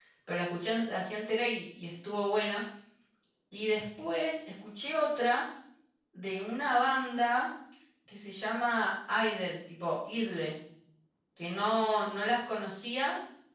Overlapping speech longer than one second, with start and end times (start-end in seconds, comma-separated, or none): none